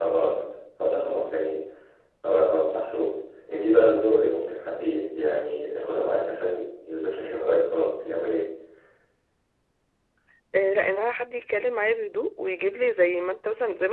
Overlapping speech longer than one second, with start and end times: none

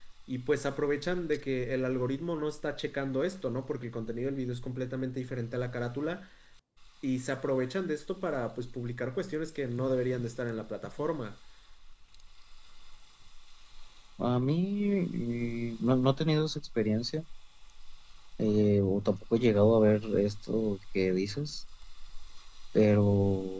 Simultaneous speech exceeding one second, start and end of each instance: none

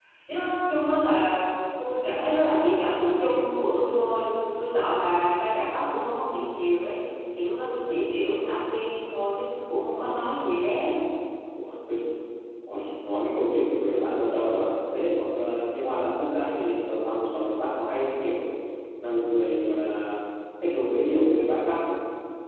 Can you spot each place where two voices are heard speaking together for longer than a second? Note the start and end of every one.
none

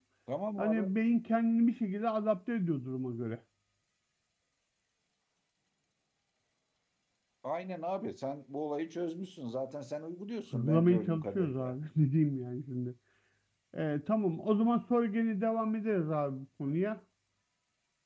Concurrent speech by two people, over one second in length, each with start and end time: 10.5-11.7

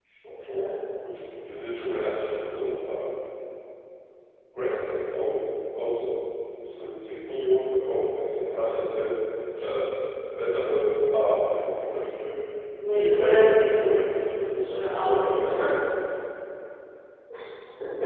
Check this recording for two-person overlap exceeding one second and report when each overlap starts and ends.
12.9-15.5

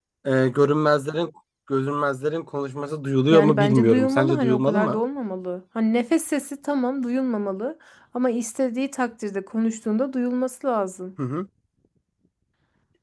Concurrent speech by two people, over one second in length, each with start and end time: 3.3-5.0

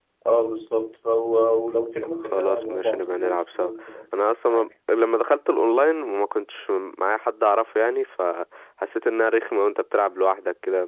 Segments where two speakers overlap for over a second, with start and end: 2.2-3.7

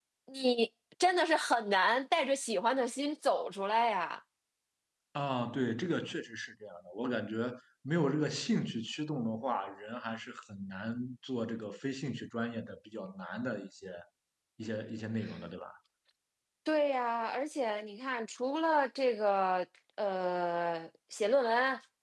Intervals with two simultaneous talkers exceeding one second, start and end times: none

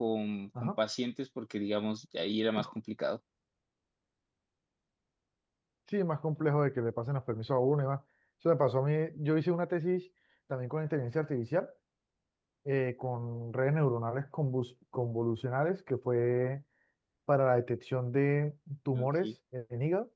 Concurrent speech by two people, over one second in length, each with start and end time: none

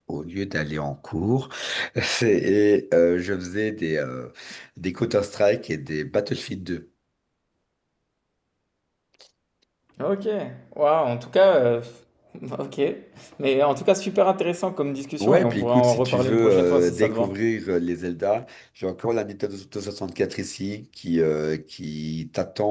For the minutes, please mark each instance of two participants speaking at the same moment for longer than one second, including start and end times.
15.2-17.4

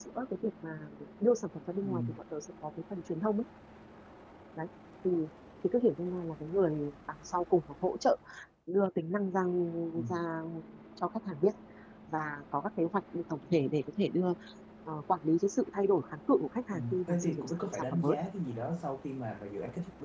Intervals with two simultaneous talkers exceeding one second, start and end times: 16.7-18.1

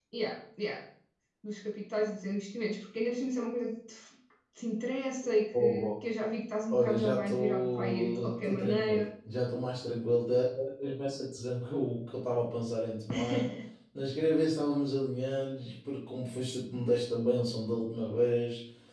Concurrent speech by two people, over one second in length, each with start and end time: 6.7-9.0

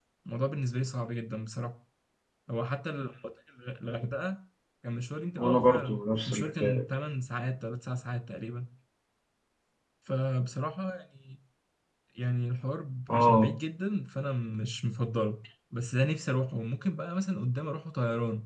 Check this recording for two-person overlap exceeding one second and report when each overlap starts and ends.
5.4-6.8

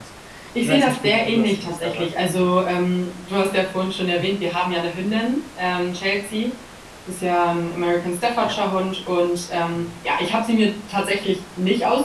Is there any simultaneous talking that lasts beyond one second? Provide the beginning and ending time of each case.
0.6-2.1

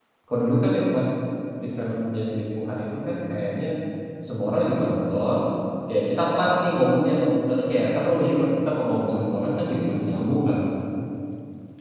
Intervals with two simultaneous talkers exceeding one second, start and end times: none

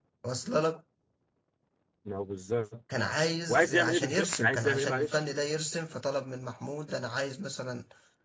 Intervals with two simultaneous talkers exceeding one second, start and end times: 3.5-5.1

